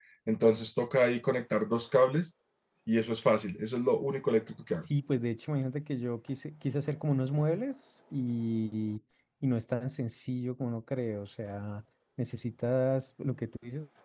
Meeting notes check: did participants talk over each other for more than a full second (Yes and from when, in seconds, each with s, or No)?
No